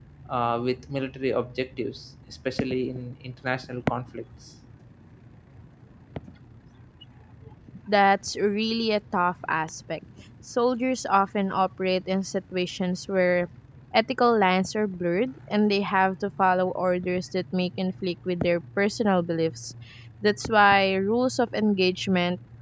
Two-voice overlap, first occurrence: none

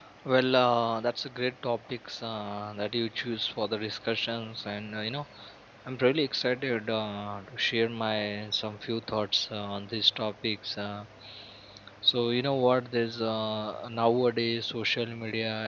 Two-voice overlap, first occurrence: none

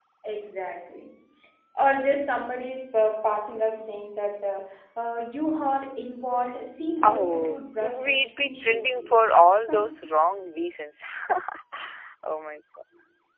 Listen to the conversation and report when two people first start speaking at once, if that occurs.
7 s

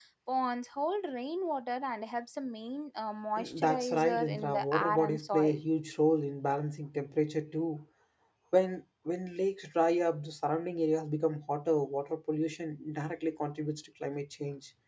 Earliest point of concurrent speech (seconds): 3 s

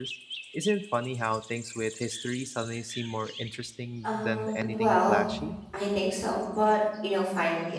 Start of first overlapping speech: 4 s

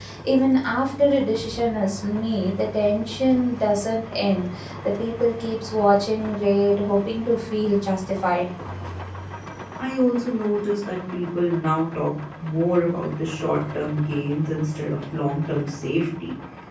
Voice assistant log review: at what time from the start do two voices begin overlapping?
none

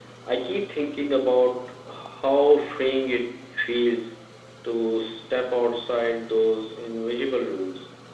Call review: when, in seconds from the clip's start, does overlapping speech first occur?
none

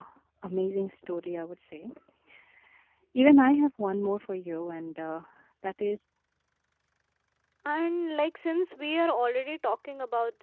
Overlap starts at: none

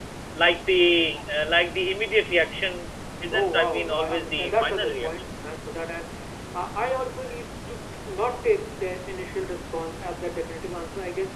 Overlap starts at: 3 s

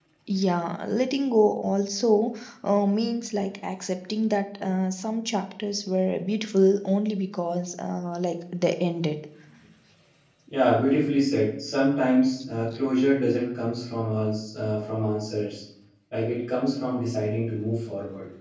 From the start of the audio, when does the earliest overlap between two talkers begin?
none

